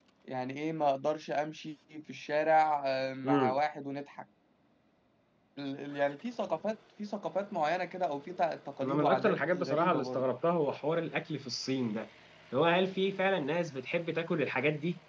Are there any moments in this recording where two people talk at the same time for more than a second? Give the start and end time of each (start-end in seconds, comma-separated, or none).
8.8-10.3